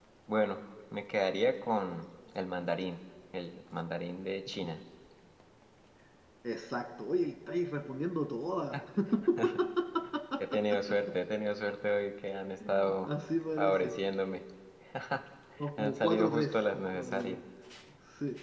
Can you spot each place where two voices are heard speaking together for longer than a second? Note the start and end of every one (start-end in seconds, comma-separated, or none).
15.8-17.4